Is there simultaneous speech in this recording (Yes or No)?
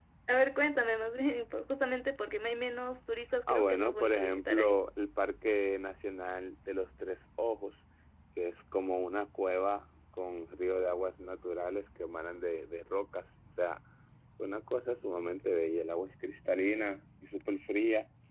Yes